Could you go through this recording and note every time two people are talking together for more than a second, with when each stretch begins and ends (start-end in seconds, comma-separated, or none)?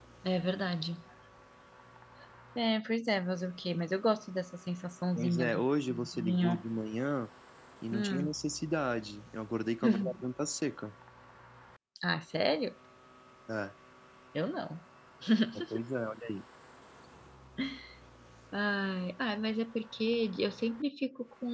5.2-6.6